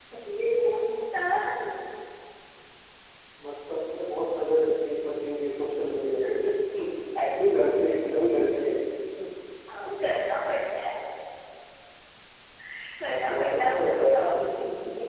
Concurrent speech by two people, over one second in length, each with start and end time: 13.0-14.3

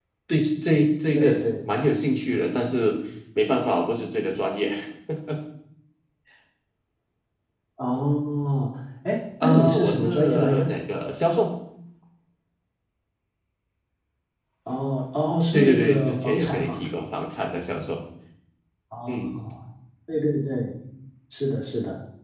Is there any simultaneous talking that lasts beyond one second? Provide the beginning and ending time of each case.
9.4-10.7, 15.5-16.8

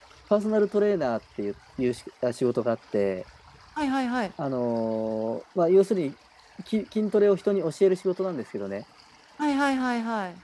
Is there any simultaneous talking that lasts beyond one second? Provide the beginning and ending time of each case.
none

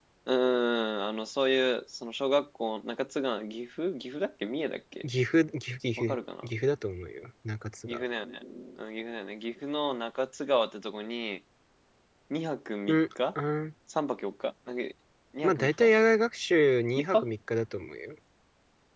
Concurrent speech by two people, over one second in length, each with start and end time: none

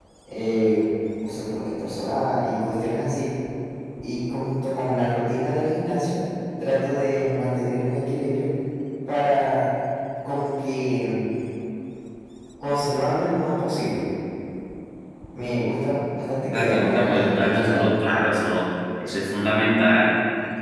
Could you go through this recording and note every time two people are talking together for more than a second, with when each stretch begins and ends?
16.5-17.9

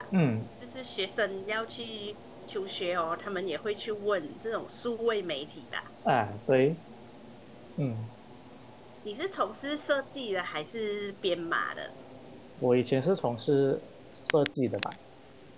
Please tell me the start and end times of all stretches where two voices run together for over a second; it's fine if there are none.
none

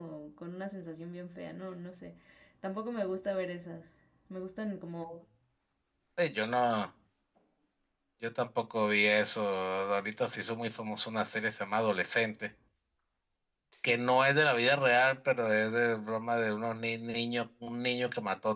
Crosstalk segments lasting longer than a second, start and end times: none

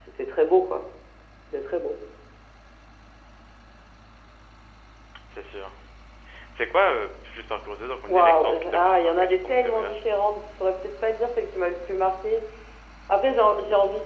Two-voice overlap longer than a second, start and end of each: 8.1-10.0

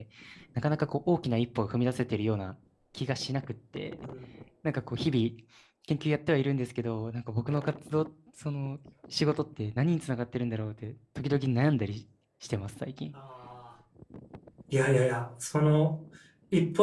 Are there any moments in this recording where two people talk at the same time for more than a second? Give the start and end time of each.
none

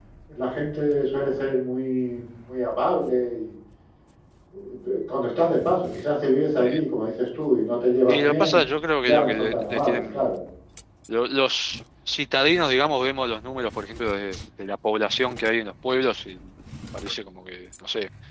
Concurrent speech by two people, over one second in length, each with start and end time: 9.0-10.2

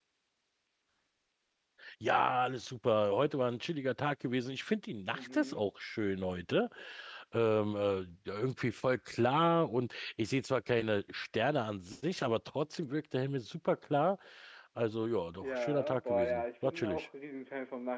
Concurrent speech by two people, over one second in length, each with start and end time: 15.4-17.1

